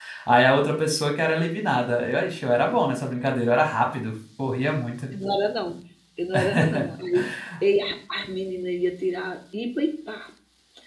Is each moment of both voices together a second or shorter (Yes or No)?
Yes